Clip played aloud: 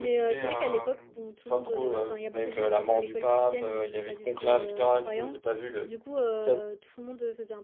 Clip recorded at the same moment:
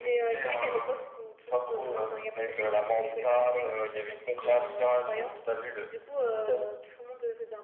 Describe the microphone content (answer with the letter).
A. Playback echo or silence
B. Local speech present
A